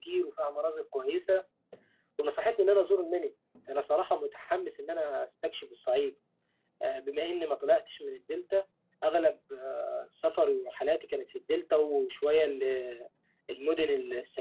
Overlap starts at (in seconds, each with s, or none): none